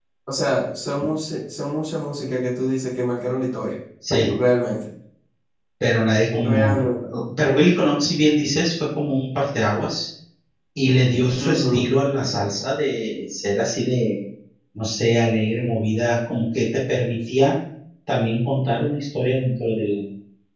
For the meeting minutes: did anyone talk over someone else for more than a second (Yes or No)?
No